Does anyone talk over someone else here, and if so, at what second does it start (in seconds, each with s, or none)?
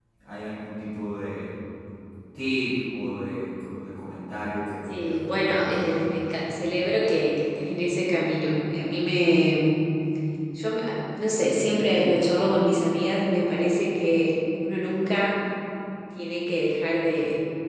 4.9 s